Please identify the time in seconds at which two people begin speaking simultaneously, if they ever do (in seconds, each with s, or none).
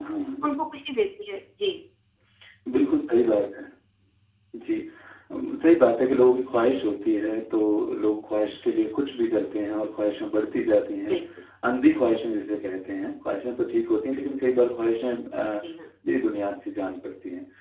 none